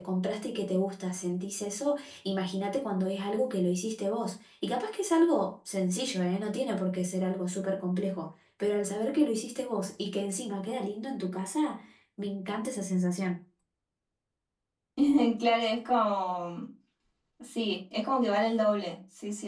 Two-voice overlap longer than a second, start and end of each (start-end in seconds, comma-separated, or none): none